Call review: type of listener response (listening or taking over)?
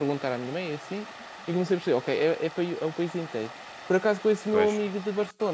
listening